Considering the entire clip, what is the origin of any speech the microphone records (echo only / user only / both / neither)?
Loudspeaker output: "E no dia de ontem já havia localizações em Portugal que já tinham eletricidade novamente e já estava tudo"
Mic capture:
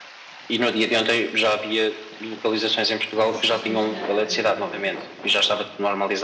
both